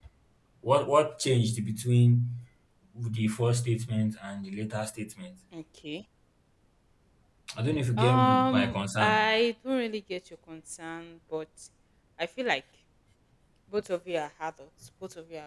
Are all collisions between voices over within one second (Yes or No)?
No